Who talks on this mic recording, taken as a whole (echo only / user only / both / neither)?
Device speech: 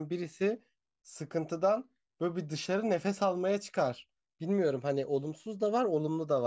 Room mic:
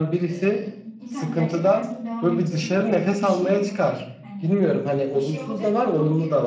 both